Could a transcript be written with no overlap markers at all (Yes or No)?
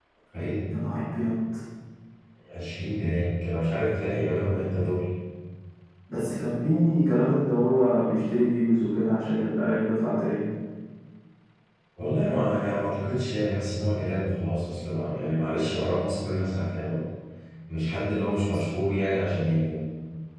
Yes